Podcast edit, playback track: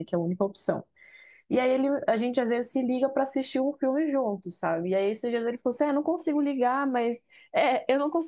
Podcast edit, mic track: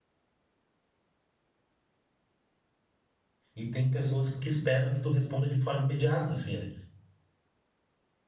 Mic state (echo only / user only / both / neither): user only